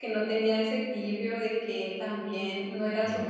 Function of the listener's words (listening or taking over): listening